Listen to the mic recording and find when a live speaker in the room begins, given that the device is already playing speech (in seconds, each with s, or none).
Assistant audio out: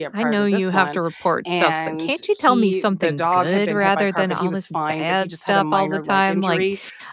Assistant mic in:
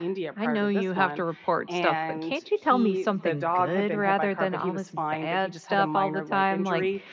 none